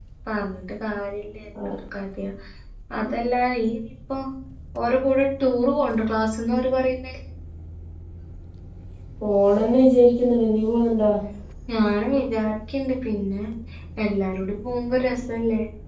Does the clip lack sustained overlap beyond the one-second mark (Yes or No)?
Yes